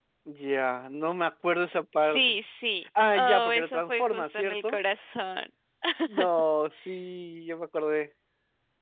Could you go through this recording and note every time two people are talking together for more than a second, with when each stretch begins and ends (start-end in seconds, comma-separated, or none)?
3.1-4.8